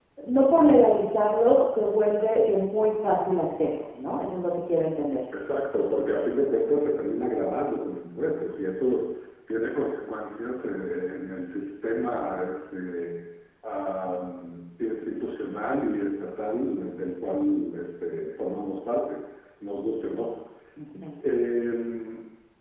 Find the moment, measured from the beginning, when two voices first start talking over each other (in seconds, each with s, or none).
none